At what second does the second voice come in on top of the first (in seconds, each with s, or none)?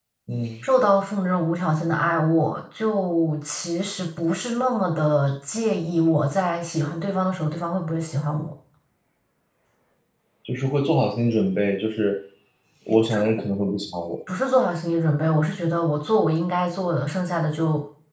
none